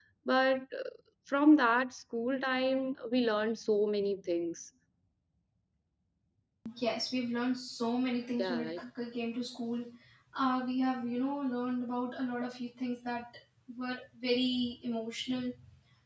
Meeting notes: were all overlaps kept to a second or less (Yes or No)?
Yes